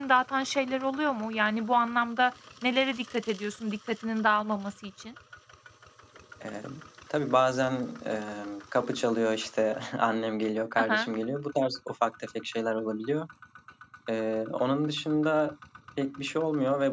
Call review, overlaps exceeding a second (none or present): none